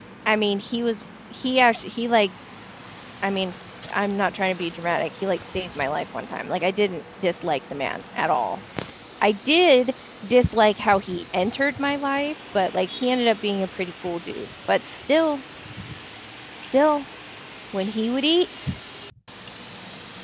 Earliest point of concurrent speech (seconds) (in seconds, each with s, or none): none